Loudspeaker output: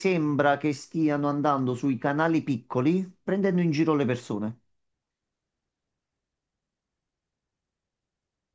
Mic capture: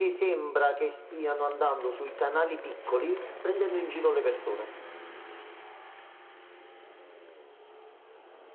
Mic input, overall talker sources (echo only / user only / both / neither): echo only